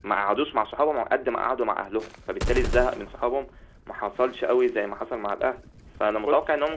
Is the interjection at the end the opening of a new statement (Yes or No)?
No